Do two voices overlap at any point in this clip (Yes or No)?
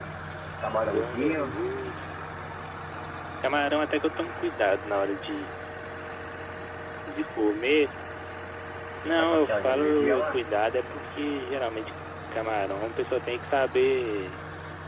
Yes